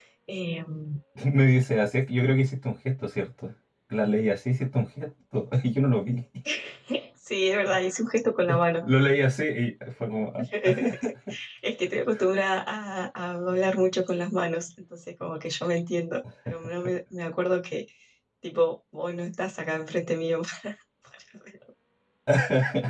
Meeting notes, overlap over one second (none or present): none